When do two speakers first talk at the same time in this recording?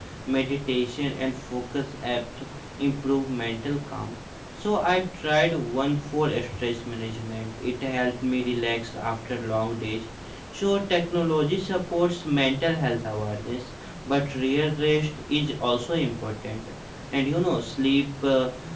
none

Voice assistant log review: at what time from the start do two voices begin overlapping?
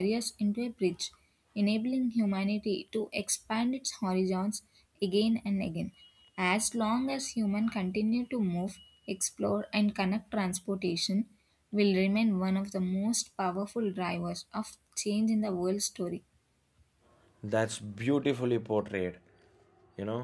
none

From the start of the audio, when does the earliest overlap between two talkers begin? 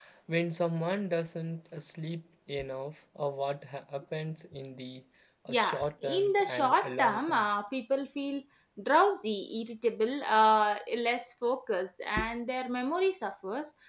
5 s

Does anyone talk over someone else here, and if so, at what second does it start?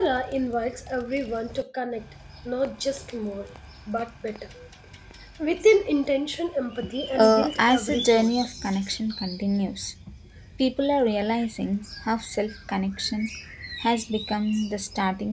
7 s

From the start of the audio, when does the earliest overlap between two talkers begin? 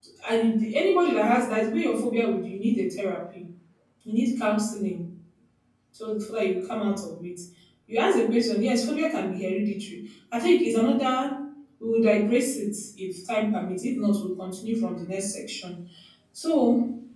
none

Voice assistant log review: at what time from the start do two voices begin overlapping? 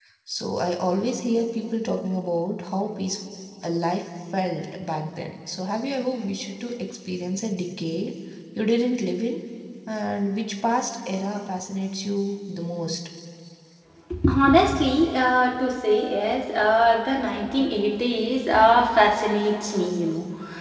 none

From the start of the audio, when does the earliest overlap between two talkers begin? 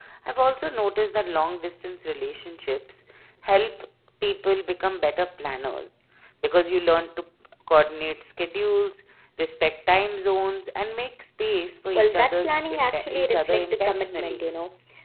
12 s

